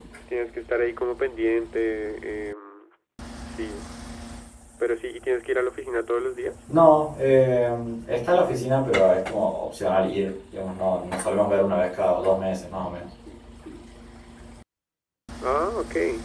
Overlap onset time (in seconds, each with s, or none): none